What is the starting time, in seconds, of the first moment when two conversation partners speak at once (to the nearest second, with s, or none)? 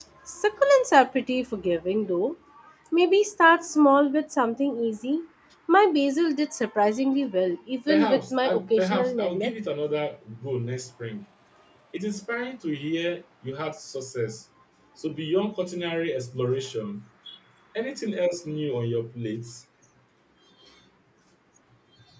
8 s